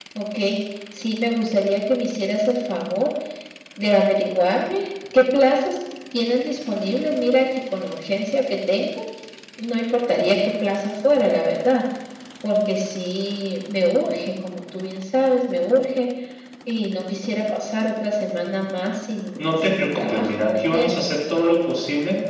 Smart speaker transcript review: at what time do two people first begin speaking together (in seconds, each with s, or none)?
19.4 s